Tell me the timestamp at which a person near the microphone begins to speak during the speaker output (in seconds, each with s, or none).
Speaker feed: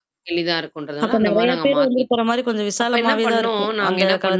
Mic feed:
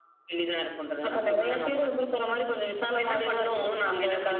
none